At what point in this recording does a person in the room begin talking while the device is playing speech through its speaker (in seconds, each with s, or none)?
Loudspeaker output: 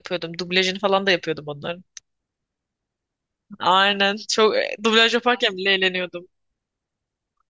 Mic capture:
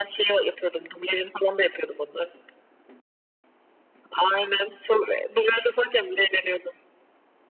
none